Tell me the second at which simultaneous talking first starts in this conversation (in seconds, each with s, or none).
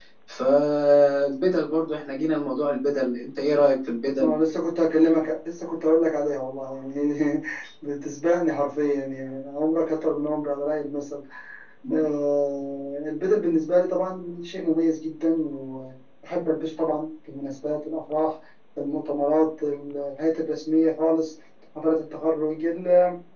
none